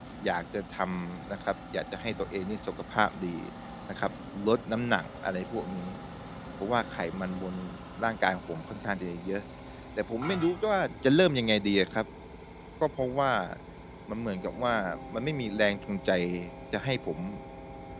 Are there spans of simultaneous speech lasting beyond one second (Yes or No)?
No